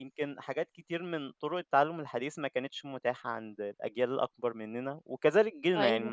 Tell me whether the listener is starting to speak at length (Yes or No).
No